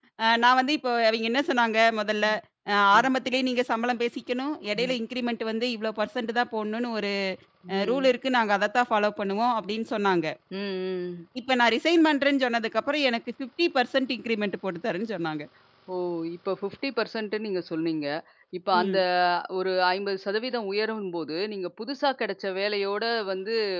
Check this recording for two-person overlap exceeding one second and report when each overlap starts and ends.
none

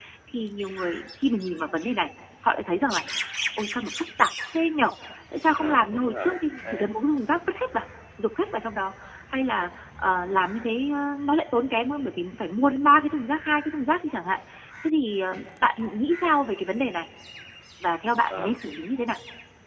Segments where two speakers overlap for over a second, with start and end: 5.6-6.9

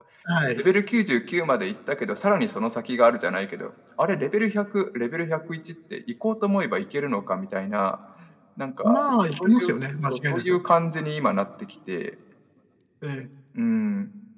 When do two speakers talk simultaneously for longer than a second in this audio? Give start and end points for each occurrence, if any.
none

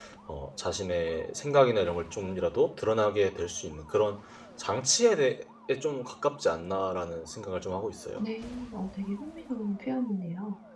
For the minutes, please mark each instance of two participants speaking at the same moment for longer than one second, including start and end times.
none

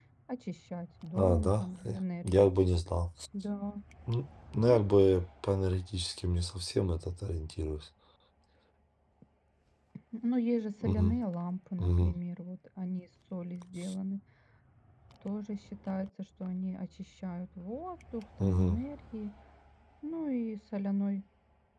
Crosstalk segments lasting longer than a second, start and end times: 1.2-2.6

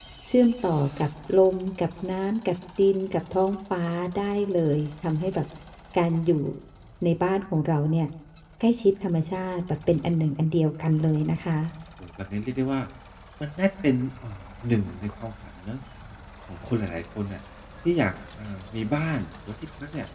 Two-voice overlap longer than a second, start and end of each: none

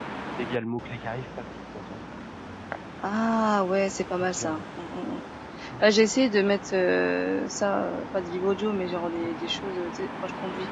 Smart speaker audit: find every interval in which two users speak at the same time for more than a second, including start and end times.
none

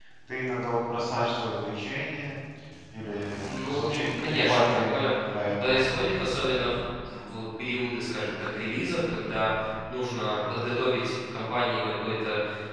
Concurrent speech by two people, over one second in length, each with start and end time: 3.6-5.0

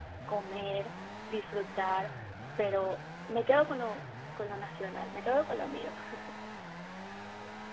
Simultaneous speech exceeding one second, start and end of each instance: none

